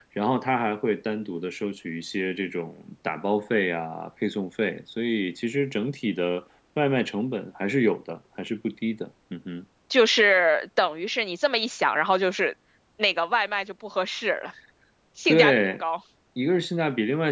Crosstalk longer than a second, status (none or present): none